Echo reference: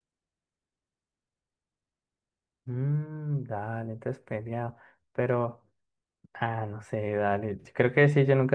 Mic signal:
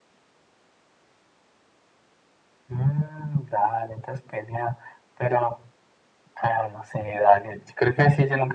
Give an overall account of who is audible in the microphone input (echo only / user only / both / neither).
echo only